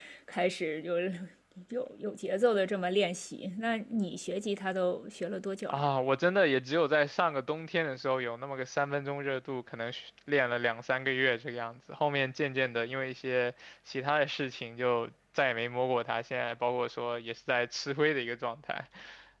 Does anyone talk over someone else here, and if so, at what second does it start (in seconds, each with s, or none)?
none